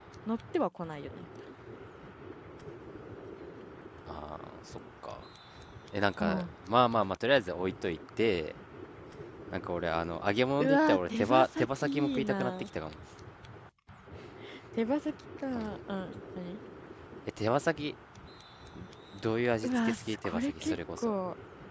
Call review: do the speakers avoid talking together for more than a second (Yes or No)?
No